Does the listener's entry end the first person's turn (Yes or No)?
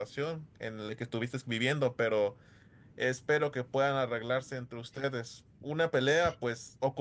No